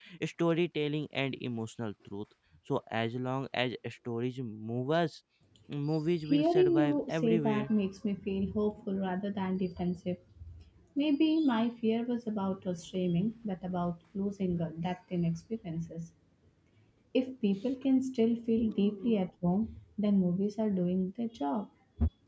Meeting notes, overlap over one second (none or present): present